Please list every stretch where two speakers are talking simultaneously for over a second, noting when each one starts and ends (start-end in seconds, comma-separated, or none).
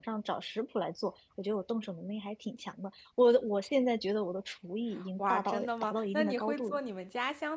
5.2-6.8